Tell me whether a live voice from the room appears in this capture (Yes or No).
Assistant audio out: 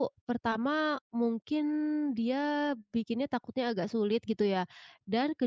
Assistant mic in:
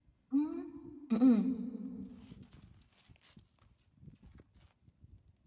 Yes